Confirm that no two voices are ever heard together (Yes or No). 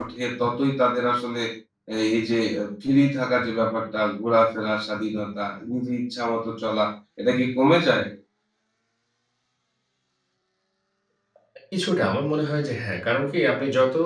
Yes